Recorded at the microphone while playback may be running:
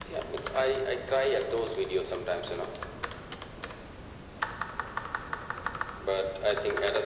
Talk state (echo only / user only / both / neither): echo only